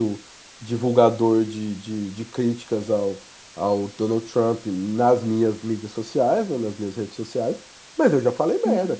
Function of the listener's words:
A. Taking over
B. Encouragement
B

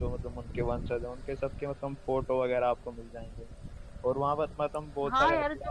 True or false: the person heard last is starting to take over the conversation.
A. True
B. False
A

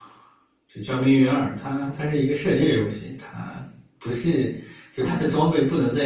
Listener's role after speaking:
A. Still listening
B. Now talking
A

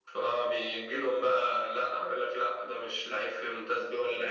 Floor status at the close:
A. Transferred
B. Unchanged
A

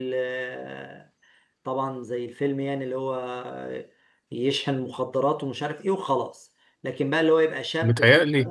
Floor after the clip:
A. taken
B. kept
B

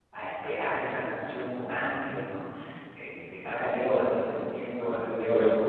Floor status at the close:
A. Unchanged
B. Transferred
B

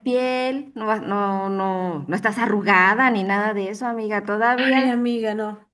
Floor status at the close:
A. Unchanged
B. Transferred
B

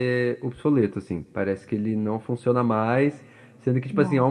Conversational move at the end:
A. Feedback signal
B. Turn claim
A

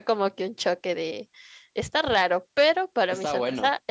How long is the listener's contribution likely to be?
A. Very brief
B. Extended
A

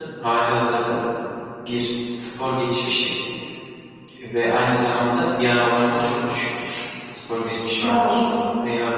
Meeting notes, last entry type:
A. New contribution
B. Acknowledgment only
B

